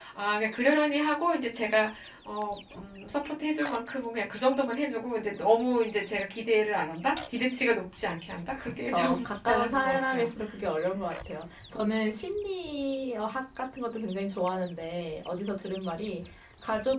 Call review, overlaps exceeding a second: present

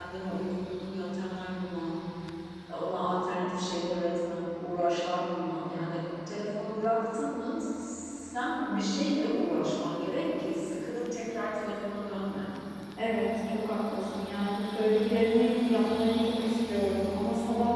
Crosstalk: none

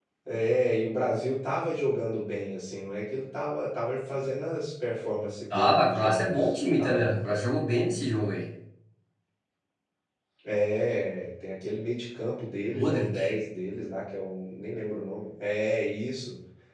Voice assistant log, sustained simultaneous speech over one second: present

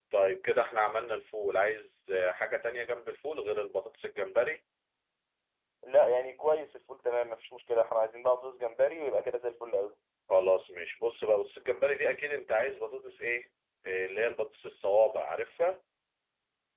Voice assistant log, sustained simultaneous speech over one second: none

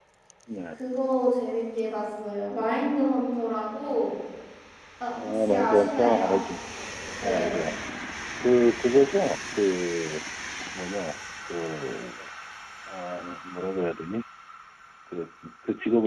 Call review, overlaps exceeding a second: present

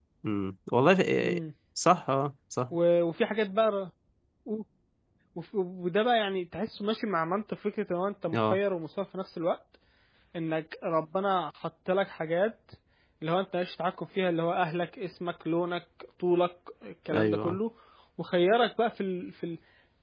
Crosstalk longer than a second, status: none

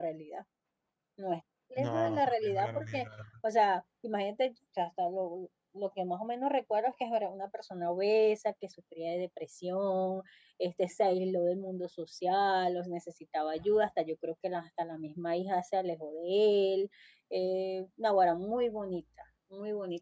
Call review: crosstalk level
present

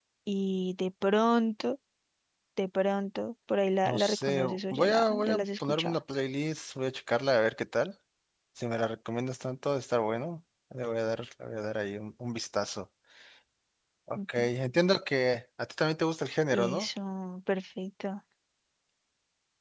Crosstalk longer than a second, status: present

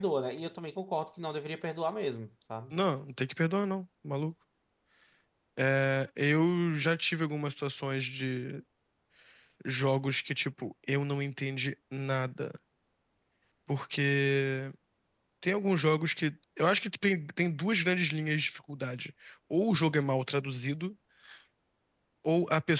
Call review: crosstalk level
none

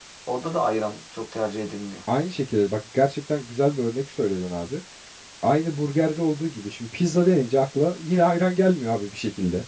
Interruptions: none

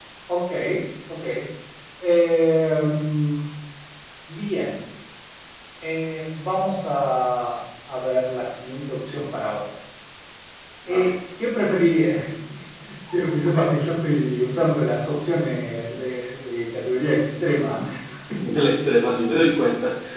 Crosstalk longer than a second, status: none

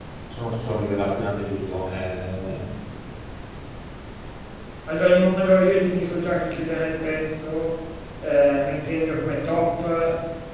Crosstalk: none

